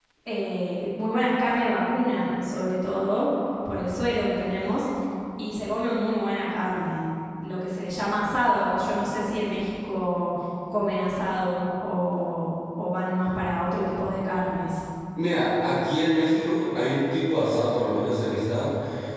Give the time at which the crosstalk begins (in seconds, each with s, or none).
none